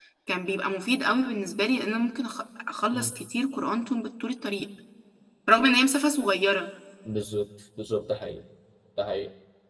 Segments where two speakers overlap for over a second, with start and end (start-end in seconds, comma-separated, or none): none